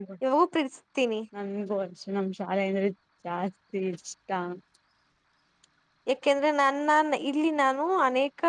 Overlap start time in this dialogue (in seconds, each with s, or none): none